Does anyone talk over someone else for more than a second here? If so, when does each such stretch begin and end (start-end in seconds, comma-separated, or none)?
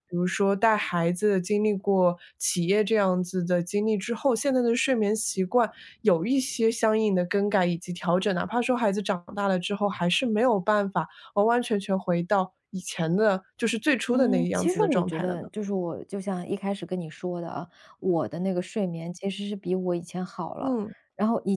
14.1-15.5